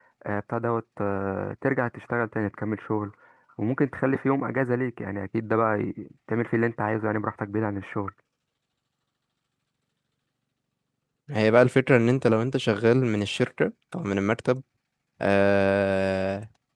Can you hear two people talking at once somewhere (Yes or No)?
No